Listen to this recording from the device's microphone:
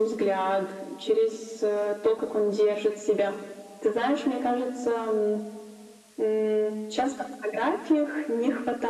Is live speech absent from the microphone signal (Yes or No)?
Yes